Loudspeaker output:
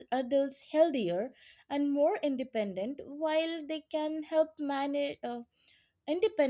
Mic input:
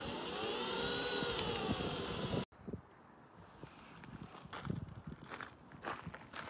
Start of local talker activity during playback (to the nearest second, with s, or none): none